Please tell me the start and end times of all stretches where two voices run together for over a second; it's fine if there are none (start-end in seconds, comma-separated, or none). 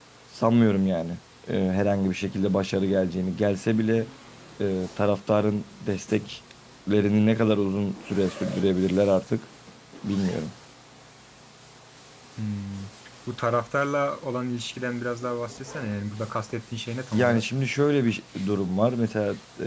none